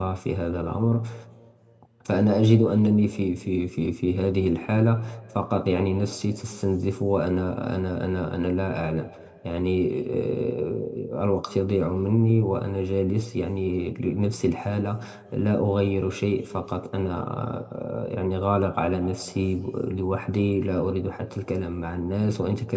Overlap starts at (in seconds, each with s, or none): none